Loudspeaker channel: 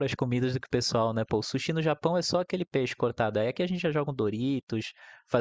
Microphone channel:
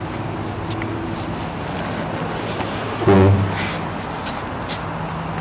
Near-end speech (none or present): present